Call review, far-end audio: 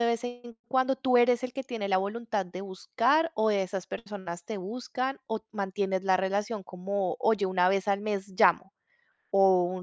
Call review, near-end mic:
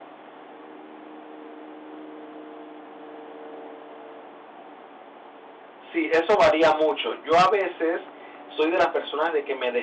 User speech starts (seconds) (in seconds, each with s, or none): 5.8 s